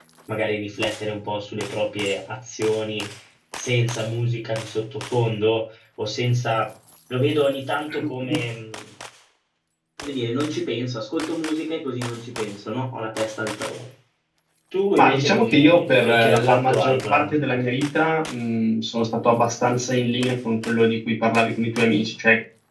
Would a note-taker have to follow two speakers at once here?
Yes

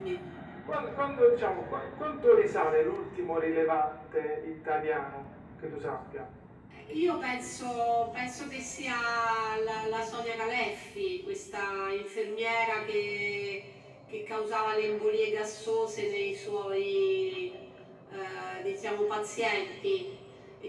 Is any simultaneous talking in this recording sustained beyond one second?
No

